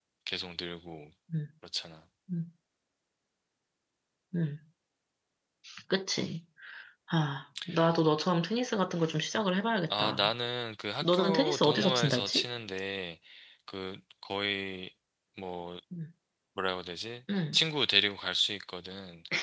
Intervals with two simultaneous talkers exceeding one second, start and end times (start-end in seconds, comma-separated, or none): 11.0-12.4